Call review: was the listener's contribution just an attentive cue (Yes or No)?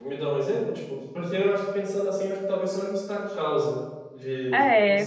No